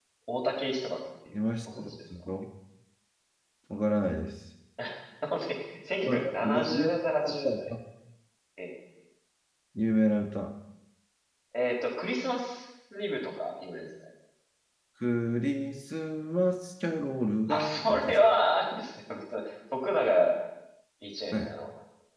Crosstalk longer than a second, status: present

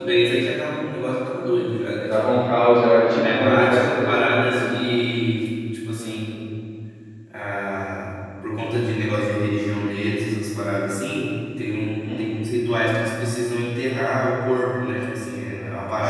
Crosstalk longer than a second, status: present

